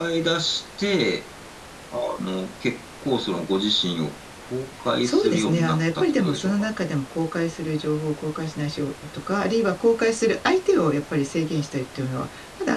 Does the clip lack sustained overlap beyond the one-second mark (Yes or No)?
No